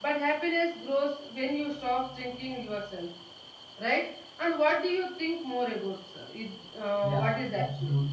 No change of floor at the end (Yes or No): No